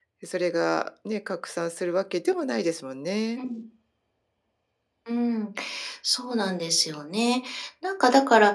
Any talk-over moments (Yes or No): No